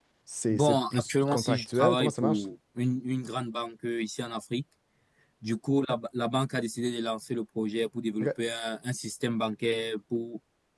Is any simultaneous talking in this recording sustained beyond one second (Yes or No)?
Yes